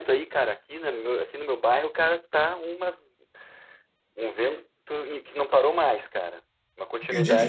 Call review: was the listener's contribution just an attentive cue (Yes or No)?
No